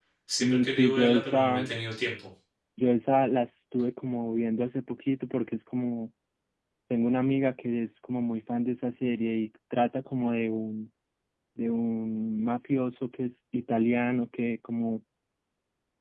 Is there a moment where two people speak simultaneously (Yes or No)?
Yes